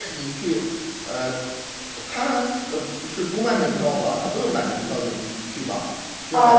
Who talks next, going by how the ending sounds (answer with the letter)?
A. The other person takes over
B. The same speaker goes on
A